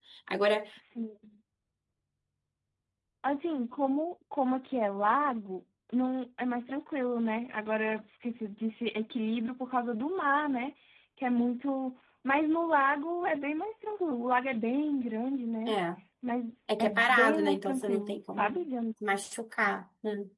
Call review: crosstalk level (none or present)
present